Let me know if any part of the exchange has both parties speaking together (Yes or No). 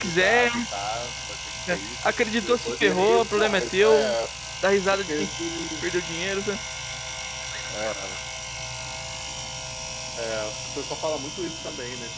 Yes